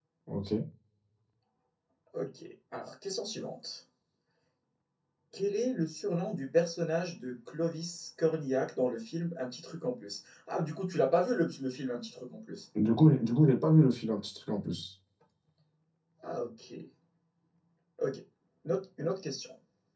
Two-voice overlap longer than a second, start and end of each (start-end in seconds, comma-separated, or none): none